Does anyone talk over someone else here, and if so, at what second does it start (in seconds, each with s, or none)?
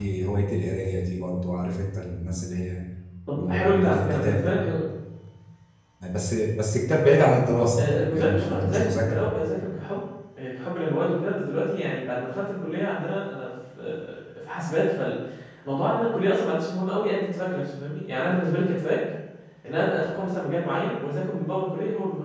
3.4 s